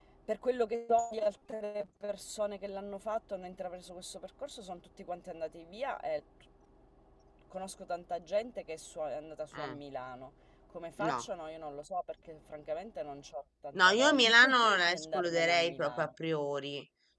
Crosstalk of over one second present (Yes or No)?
Yes